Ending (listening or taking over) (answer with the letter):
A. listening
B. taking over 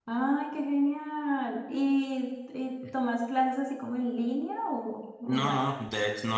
B